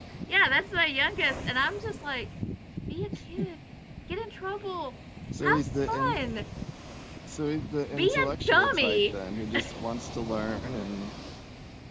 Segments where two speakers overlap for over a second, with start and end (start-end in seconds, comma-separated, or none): 7.9-9.2